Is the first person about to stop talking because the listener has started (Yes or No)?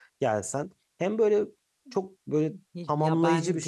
Yes